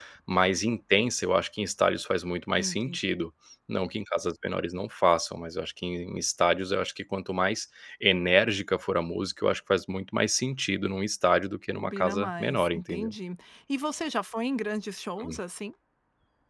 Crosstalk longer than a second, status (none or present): present